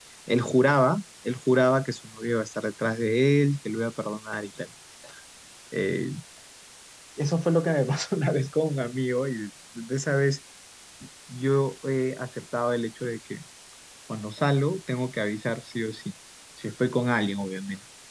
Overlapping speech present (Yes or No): No